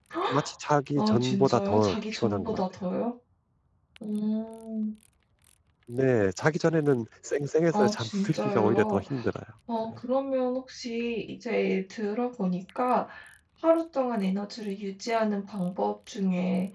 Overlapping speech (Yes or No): Yes